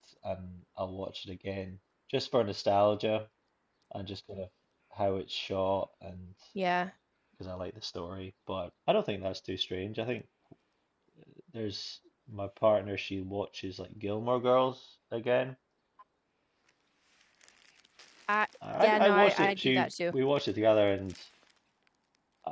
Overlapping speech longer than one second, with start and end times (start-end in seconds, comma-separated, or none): 18.8-20.1